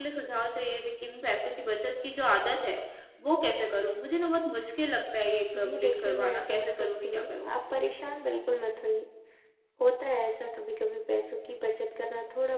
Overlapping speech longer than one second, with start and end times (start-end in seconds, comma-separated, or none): 5.6-7.6